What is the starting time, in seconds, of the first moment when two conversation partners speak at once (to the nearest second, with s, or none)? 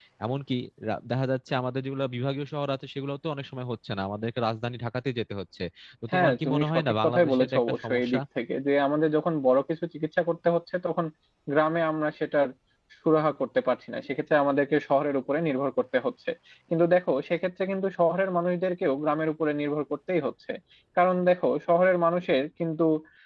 6 s